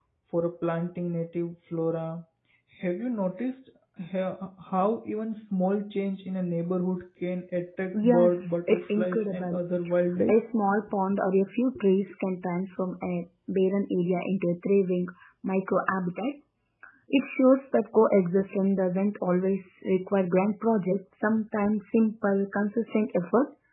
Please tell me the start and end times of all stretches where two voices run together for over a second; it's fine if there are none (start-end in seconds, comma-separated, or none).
8.0-9.6